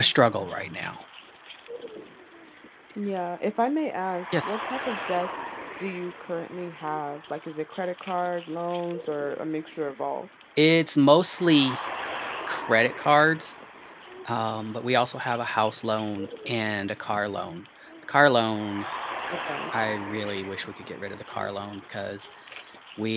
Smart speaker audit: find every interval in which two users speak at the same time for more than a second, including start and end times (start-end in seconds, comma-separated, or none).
none